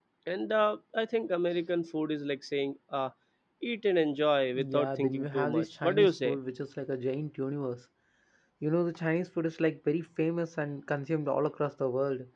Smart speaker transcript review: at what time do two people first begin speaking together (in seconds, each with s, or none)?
4.6 s